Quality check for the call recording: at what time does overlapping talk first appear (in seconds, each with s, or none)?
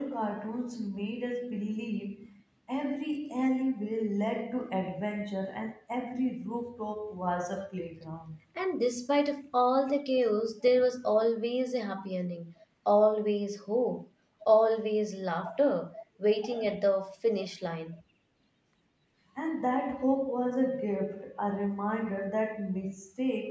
none